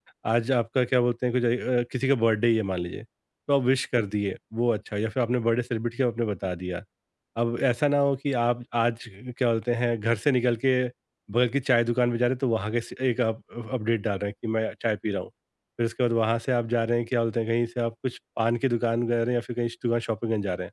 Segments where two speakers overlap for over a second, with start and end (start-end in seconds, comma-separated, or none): none